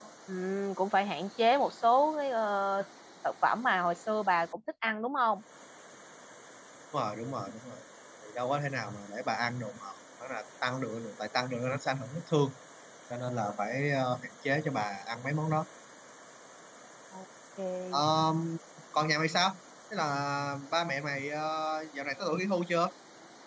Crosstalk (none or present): none